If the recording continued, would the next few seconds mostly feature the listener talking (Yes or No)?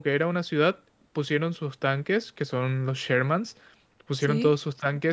No